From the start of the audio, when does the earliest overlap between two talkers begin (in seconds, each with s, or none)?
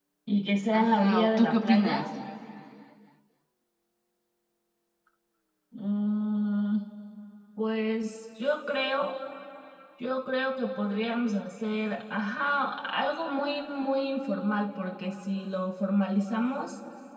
0.7 s